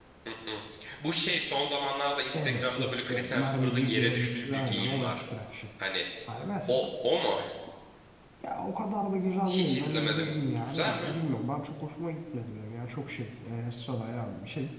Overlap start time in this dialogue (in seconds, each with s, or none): 2.3 s